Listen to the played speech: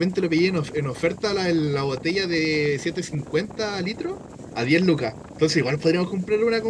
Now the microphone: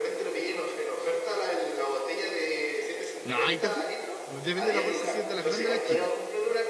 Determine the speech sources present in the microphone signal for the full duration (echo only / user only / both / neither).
both